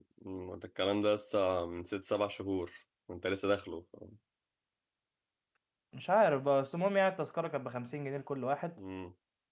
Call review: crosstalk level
none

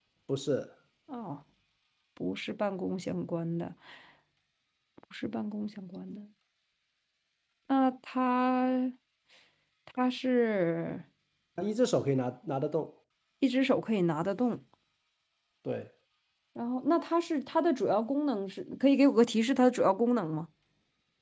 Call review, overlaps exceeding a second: none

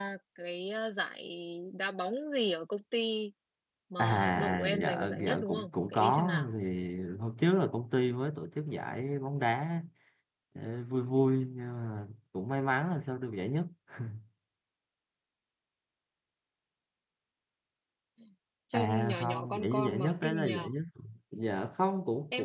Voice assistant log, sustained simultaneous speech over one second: present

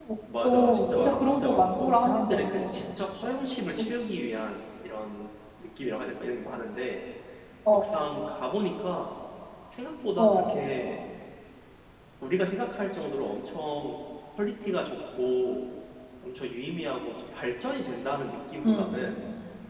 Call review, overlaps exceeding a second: present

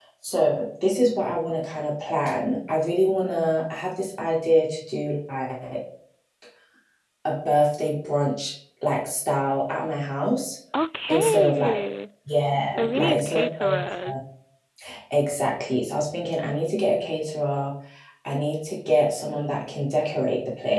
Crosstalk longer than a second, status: present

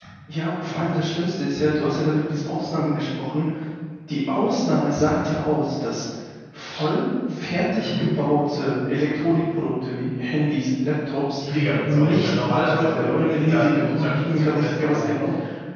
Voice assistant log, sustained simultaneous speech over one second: present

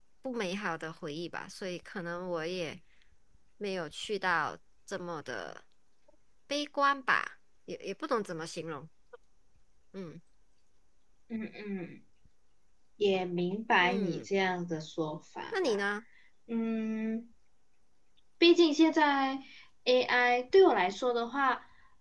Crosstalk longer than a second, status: none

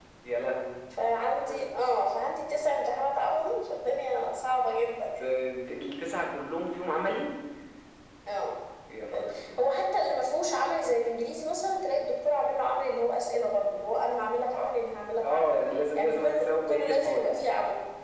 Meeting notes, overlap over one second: present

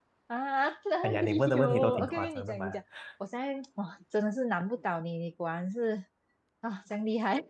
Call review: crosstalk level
present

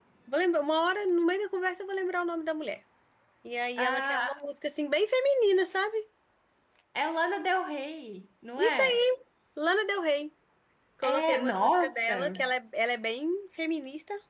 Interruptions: present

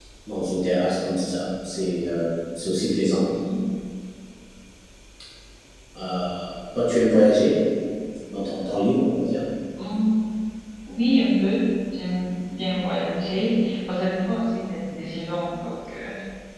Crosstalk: none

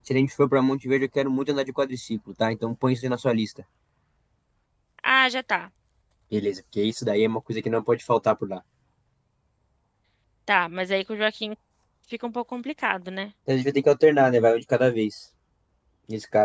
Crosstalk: none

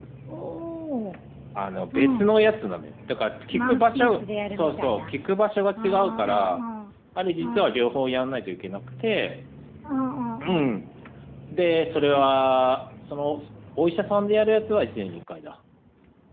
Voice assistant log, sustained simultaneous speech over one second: present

